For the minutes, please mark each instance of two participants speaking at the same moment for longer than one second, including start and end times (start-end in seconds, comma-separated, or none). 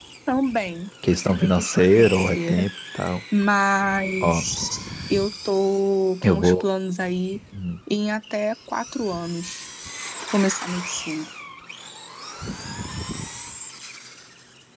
1.2-2.7